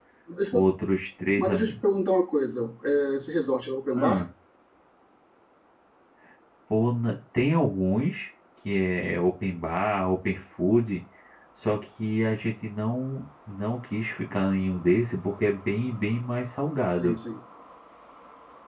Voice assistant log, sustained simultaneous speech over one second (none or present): none